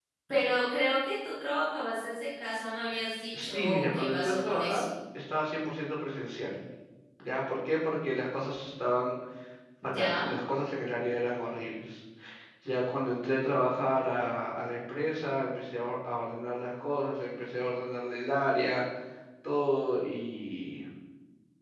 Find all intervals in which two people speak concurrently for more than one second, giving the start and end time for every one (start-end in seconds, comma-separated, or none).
3.4-4.9